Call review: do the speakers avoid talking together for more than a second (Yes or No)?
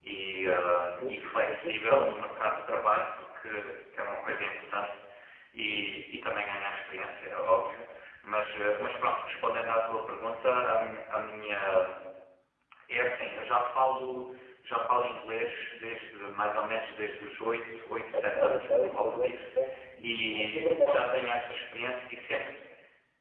No